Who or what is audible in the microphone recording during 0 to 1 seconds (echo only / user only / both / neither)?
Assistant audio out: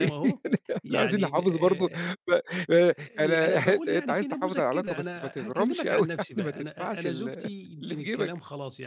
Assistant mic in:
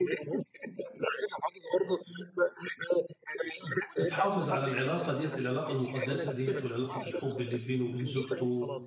echo only